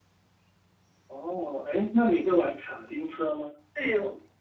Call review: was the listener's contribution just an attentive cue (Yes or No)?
No